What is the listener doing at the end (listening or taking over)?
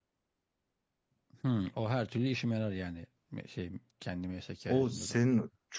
taking over